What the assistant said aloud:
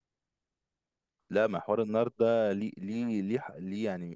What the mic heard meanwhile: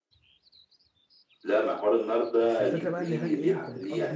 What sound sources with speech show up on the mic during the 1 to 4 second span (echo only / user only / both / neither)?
both